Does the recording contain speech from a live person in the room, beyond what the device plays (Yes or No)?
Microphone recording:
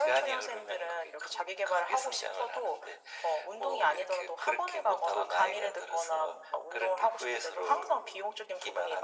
No